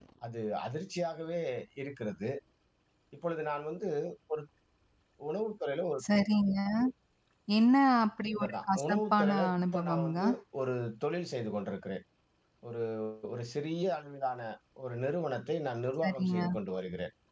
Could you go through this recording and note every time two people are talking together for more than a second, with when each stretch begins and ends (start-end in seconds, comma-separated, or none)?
8.4-10.2